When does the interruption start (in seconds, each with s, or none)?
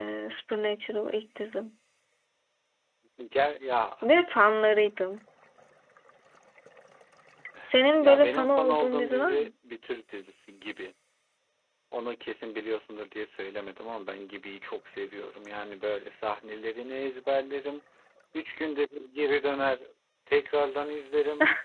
8.0 s